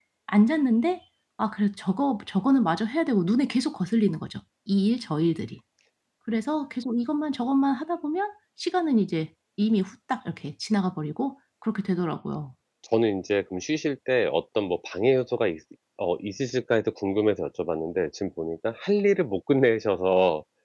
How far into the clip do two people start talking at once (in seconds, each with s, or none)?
none